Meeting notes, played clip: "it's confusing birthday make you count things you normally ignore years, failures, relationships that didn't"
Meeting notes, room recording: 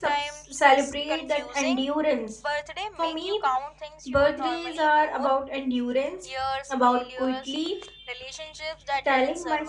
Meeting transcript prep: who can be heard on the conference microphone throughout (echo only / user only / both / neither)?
both